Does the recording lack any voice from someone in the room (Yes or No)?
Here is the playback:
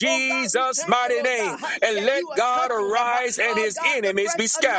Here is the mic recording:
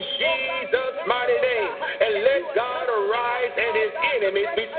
Yes